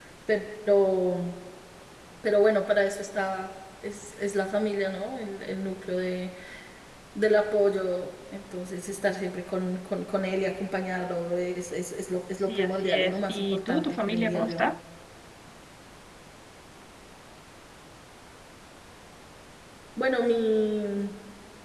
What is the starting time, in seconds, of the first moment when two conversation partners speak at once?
12.3 s

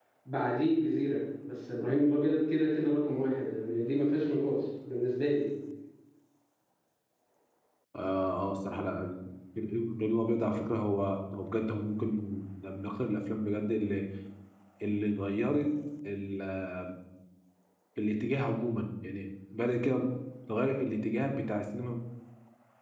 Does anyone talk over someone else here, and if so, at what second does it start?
none

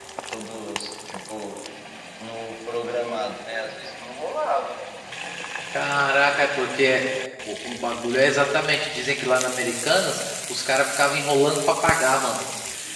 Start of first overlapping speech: none

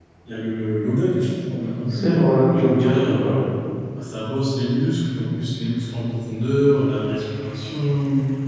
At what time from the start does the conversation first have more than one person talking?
1.9 s

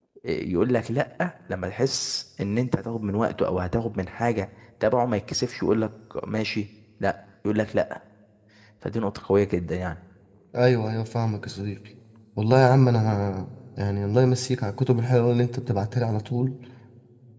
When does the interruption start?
none

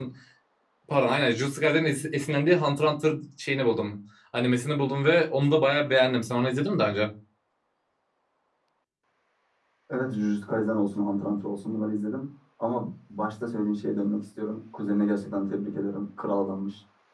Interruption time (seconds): none

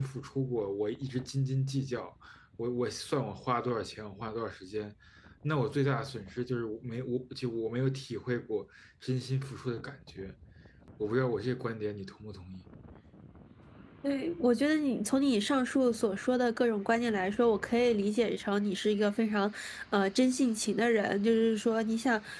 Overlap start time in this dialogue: none

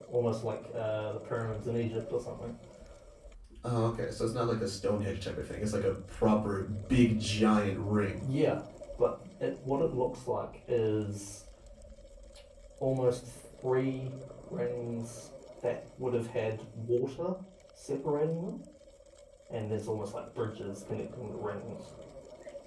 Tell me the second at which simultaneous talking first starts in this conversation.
none

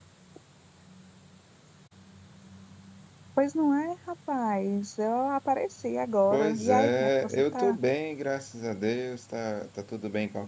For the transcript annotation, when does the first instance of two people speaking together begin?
6.3 s

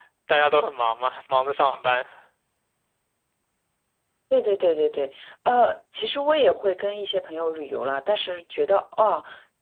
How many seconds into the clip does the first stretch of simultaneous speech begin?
none

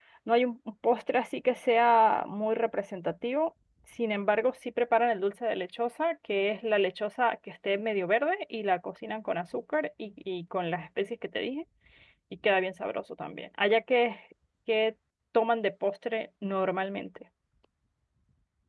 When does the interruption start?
none

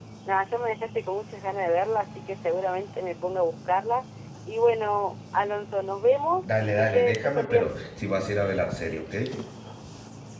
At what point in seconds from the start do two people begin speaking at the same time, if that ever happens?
6.4 s

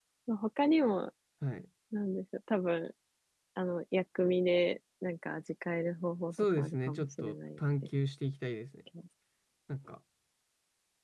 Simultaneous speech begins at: 6.3 s

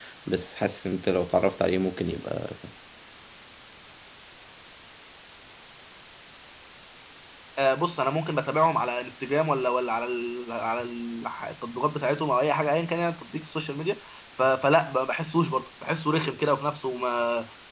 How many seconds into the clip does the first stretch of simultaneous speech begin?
none

